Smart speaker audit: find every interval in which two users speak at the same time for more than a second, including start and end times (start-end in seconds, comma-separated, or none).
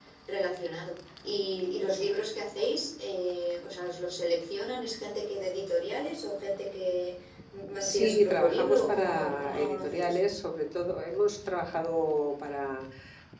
7.8-10.2